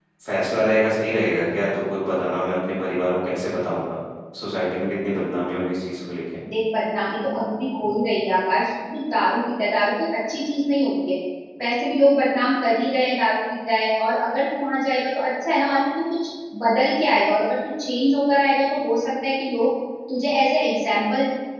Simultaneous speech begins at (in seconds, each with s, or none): none